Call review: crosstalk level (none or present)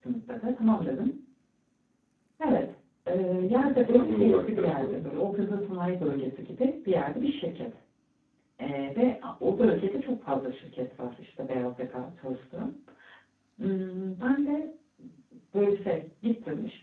present